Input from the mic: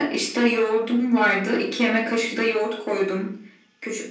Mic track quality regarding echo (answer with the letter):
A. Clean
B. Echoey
B